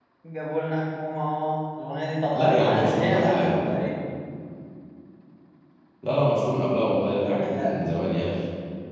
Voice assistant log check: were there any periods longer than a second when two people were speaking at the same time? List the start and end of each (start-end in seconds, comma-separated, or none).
2.3-3.7